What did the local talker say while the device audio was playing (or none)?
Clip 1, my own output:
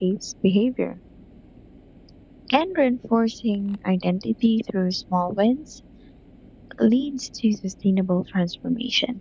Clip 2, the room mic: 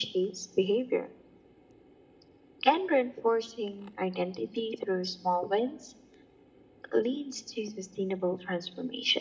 none